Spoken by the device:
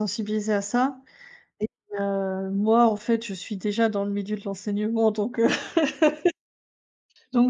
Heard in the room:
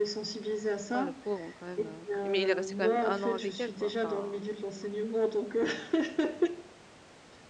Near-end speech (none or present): present